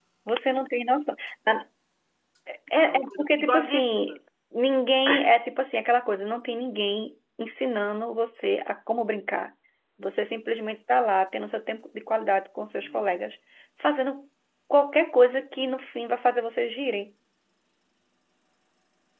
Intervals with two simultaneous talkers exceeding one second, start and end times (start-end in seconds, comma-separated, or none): 2.7-4.1